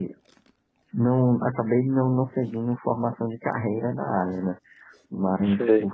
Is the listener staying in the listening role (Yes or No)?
Yes